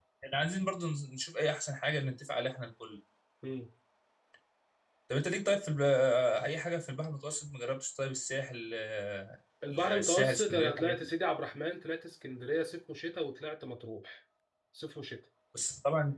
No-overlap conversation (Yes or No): No